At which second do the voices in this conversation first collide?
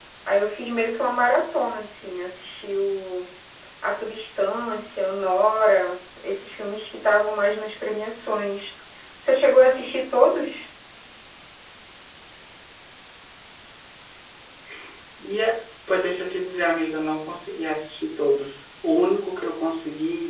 none

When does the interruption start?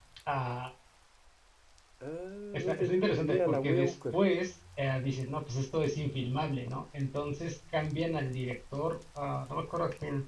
2.5 s

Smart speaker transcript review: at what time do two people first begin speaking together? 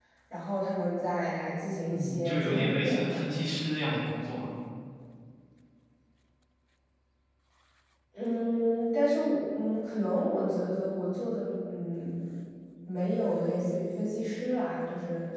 1.9 s

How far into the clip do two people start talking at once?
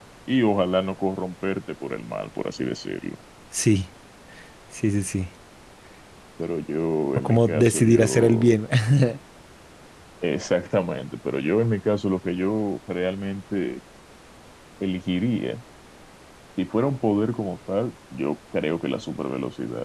7.2 s

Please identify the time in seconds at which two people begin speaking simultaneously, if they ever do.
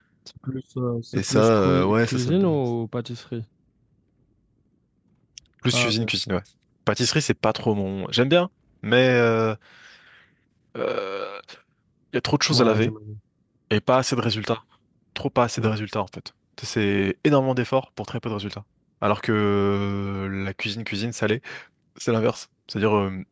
1.1 s

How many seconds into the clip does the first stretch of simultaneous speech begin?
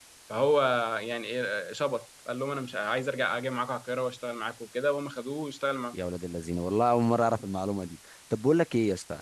none

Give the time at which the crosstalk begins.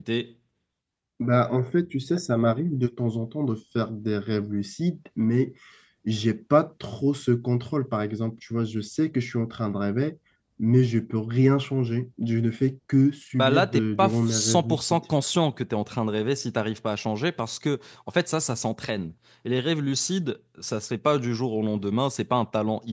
13.3 s

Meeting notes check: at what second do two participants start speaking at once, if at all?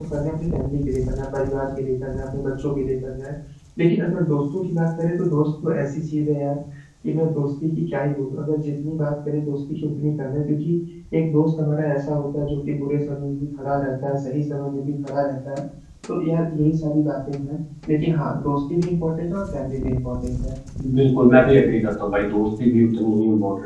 none

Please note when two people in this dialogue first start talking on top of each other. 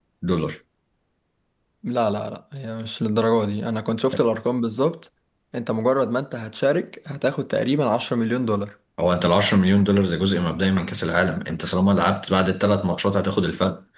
none

